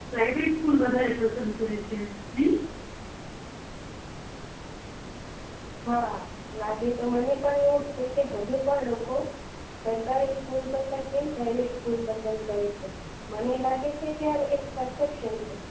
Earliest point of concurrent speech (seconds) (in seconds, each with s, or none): none